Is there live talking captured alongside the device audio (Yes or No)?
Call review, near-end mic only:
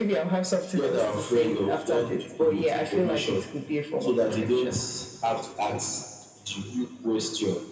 No